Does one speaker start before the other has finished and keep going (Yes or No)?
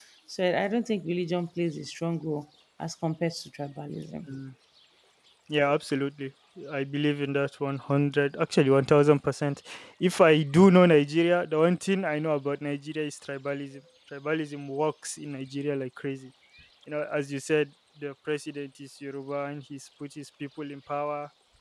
No